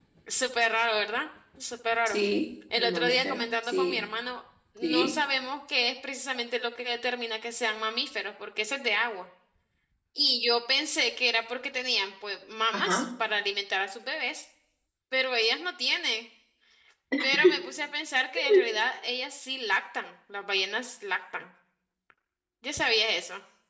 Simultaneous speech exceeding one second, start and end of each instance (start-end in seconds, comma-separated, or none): 2.7-4.1